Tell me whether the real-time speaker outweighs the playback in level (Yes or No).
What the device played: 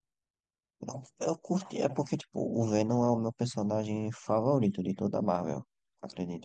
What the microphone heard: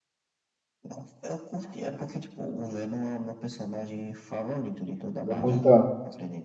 Yes